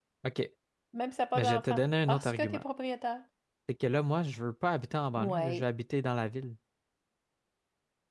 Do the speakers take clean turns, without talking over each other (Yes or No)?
No